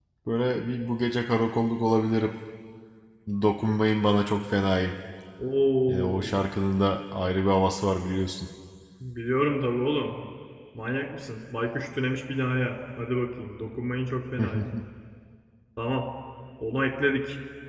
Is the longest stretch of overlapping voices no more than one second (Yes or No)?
Yes